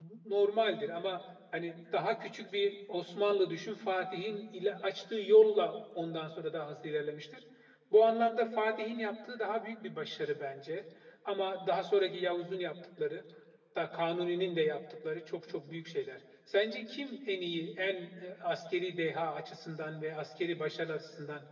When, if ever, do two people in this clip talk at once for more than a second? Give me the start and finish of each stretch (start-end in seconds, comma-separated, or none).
none